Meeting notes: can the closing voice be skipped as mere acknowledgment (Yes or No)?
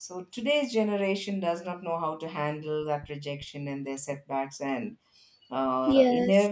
Yes